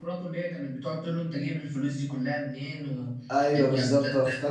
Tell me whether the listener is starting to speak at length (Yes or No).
Yes